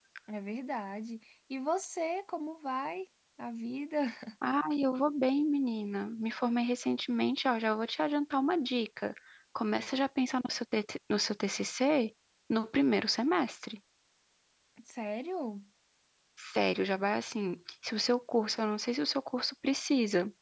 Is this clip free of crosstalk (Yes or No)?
Yes